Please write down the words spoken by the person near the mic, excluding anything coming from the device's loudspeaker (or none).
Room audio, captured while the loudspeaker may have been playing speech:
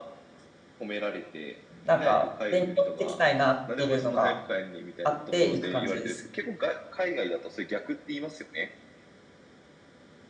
なんか勉強していきたいなっていうのがあっていく感じです。